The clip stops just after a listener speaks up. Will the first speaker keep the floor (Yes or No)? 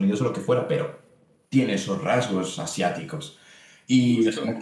Yes